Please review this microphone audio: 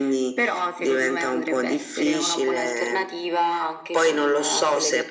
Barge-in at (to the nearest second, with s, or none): none